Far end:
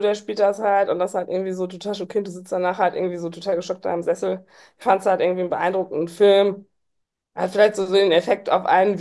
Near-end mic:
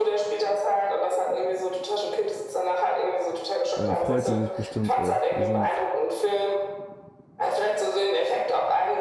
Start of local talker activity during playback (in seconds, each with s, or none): 3.7 s